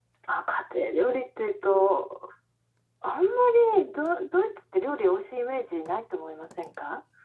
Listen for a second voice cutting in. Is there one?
No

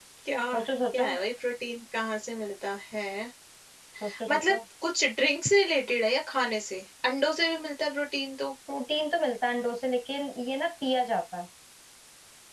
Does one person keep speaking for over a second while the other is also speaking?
No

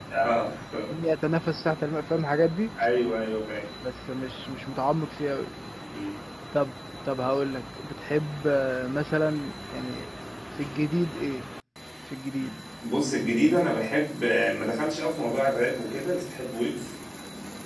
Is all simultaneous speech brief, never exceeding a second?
Yes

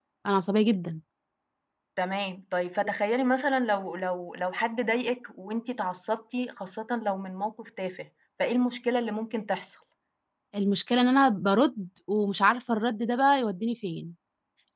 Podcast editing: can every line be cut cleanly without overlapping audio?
Yes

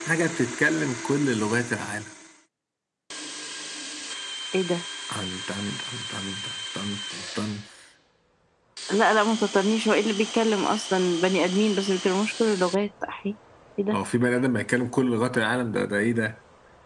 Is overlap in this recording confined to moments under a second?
Yes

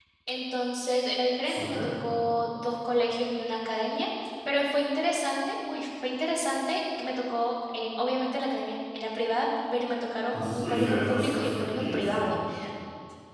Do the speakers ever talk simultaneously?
Yes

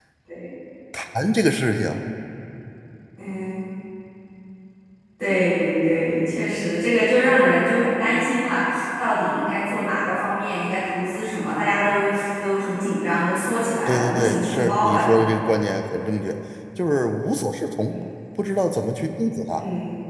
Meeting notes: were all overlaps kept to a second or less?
No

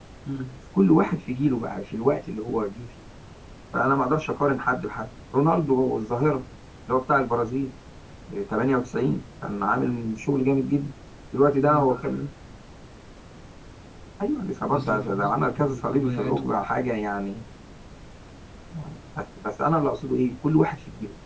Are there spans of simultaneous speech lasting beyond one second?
Yes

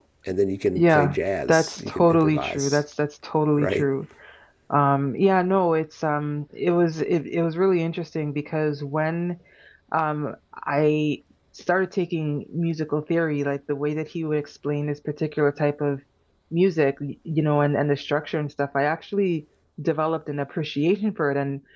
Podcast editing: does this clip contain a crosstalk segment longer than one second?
Yes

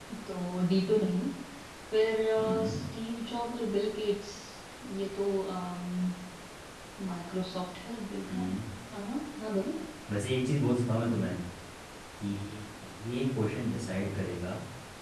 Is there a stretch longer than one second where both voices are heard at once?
No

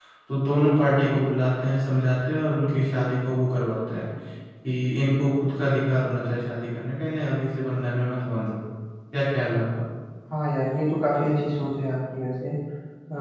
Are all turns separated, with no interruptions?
Yes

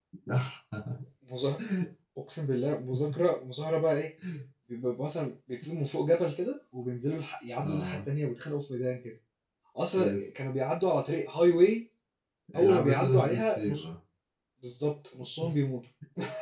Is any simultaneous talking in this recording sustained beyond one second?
Yes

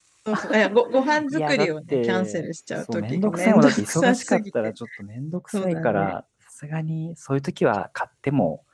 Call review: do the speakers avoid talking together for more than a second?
No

